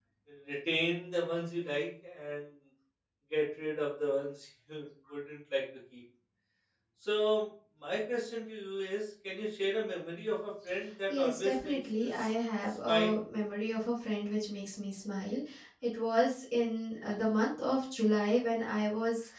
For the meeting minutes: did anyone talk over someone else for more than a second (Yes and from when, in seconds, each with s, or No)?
Yes, from 11.1 s